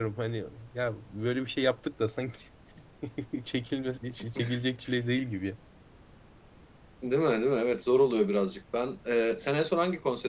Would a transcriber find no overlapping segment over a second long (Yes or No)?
Yes